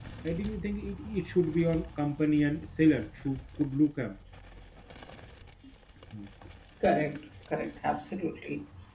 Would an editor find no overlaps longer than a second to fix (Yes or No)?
Yes